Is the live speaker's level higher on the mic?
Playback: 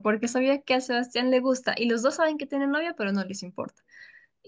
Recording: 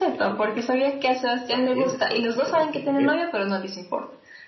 No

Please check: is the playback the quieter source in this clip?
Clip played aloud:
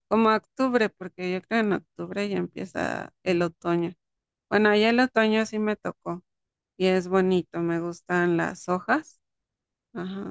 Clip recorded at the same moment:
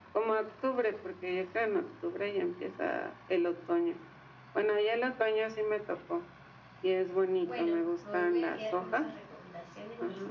No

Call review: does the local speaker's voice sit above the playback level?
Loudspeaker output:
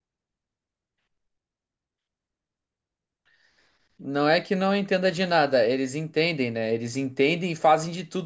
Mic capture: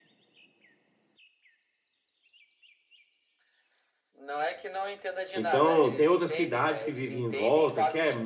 Yes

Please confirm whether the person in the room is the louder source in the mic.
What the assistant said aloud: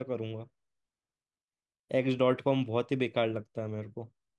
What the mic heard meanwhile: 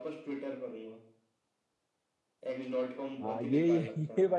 Yes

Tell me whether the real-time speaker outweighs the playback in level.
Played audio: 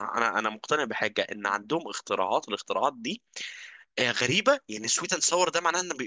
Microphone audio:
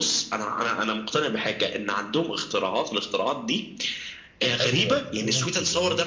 No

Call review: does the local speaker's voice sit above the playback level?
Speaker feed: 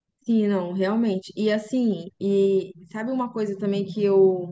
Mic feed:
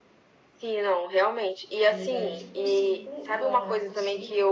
No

